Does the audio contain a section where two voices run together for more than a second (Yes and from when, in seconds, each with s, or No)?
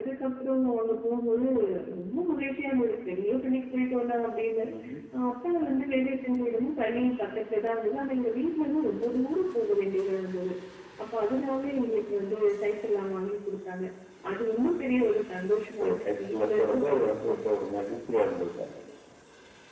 Yes, from 15.8 s